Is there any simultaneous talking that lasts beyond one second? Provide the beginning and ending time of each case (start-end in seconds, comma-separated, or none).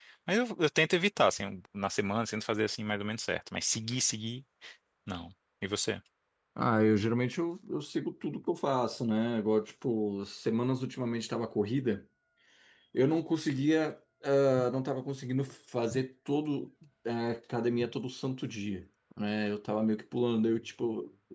none